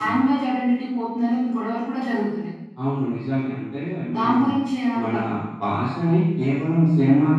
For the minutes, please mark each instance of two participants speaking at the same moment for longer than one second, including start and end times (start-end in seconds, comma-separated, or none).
none